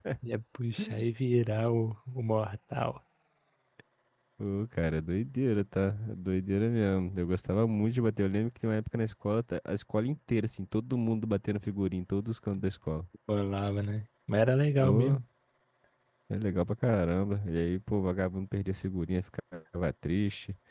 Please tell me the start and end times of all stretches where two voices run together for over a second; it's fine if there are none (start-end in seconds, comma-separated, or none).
none